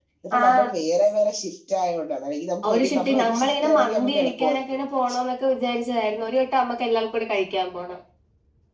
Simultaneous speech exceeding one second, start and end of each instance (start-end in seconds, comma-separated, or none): 2.7-4.8